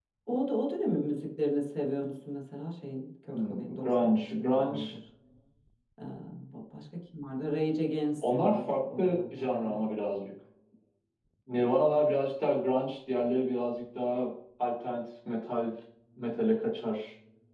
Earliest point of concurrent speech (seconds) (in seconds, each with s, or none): 3.3 s